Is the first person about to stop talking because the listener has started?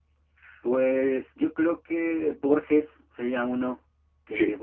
No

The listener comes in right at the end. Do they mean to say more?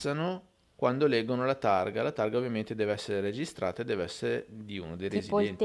Yes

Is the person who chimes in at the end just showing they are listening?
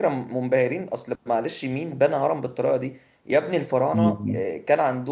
Yes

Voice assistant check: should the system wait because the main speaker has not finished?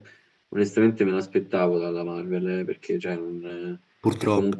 Yes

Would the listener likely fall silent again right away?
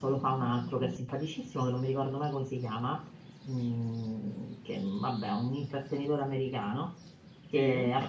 Yes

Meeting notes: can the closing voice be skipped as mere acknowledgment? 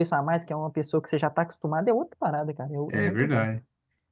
No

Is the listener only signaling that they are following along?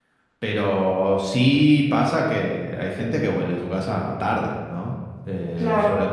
Yes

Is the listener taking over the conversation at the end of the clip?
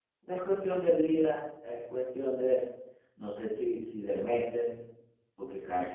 No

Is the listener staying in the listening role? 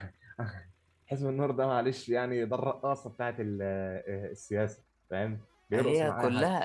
No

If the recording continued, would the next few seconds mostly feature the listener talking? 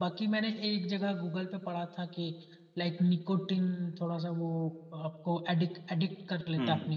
Yes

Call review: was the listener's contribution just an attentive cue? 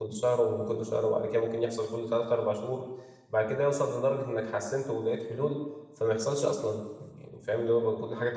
No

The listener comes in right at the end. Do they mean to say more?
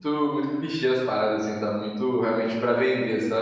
Yes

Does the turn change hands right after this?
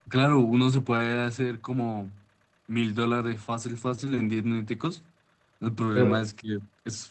No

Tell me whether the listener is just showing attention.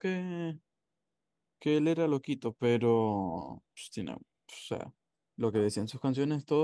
Yes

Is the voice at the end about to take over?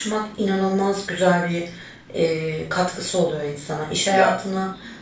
No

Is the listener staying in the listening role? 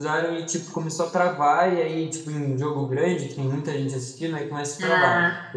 Yes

